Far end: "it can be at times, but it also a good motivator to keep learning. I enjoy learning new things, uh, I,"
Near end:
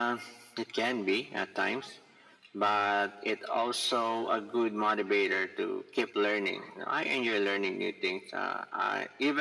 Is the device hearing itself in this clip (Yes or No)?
Yes